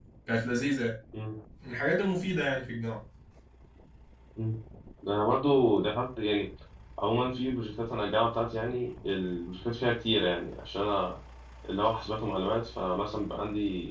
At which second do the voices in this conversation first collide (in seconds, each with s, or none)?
none